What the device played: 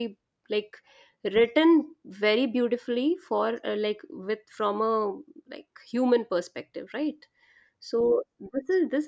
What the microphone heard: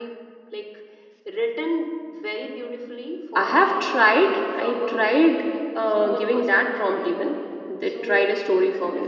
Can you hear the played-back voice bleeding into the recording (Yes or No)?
Yes